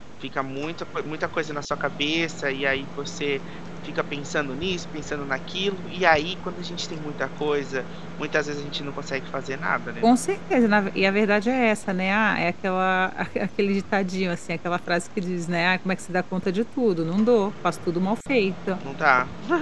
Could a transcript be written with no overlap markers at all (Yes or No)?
Yes